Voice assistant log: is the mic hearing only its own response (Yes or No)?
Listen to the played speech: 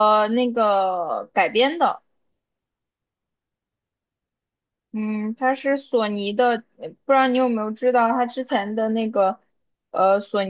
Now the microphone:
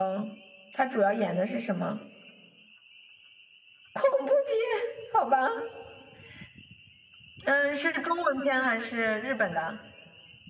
No